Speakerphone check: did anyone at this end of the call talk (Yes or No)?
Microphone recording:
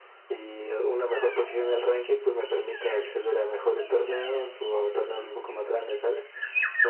No